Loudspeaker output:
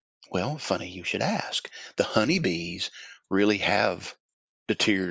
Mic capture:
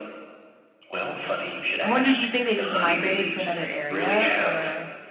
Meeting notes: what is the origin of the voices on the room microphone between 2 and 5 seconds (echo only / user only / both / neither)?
both